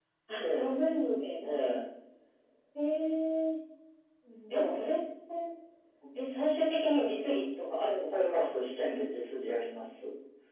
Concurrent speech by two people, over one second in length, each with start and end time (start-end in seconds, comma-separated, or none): none